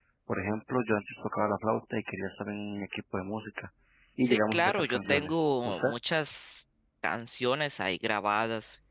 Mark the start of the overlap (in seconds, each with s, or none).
4.2 s